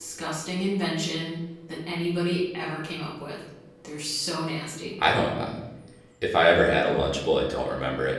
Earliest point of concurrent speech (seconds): none

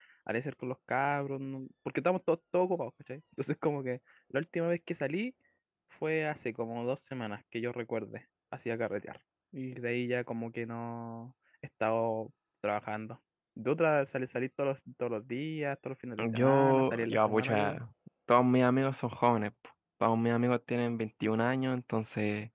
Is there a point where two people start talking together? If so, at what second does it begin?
16.2 s

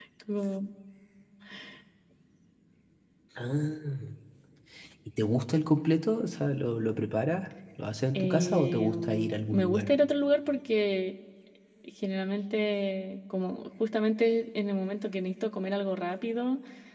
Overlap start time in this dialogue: 8.1 s

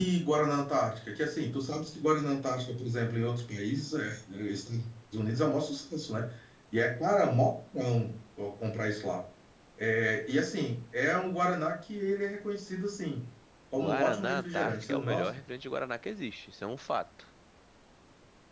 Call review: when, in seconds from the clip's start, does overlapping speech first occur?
13.7 s

